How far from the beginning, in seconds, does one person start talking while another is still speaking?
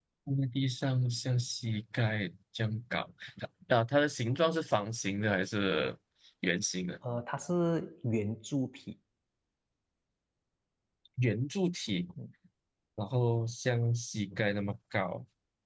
none

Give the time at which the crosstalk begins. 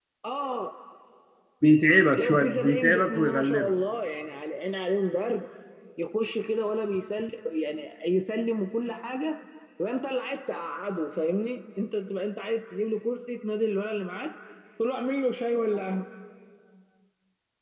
2.2 s

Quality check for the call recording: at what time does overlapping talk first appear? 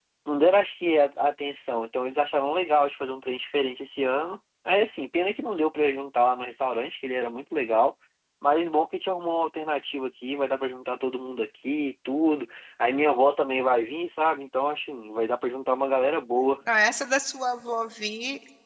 none

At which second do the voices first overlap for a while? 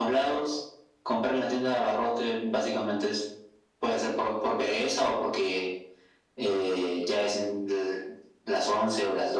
none

